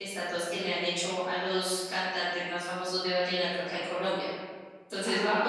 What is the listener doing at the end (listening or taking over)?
taking over